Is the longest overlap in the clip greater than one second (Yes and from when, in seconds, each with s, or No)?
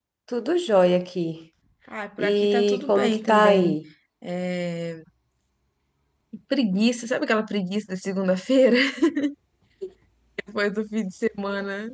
Yes, from 2.2 s